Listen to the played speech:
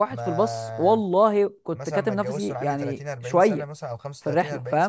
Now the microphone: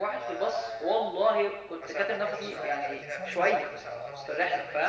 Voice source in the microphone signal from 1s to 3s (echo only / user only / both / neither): both